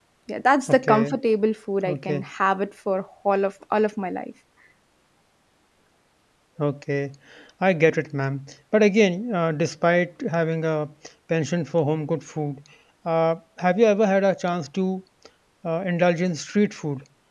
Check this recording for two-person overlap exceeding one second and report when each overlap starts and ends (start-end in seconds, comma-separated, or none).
none